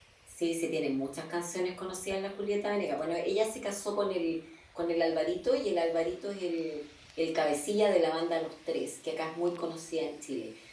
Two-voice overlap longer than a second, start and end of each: none

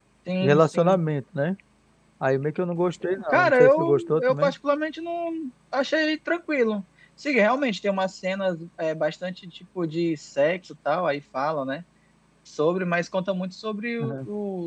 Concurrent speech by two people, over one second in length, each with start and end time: 3.3-4.5

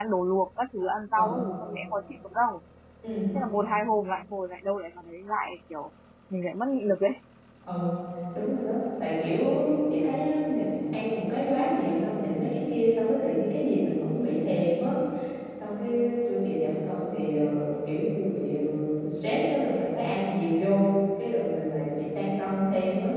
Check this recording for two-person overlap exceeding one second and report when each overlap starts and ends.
none

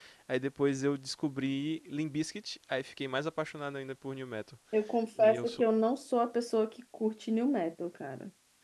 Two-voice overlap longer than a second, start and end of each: none

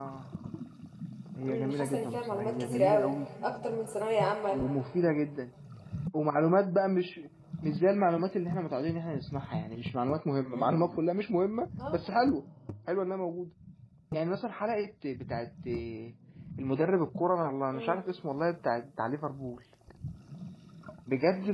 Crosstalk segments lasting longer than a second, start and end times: 1.5-3.1

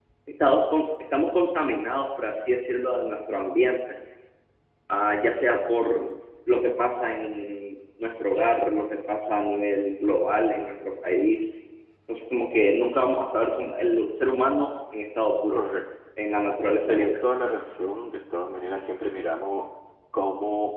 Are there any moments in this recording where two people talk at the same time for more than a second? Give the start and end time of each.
none

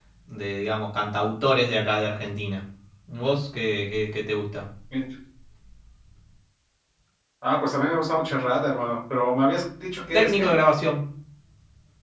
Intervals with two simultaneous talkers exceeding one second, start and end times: none

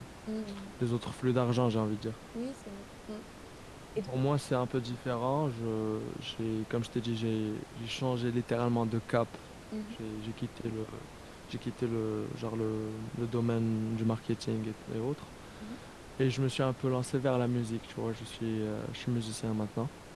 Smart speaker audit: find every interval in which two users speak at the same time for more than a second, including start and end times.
none

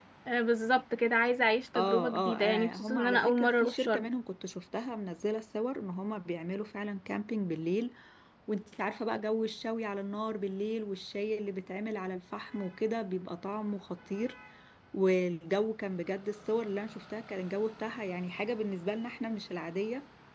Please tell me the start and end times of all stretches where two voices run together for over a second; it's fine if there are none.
1.8-4.1

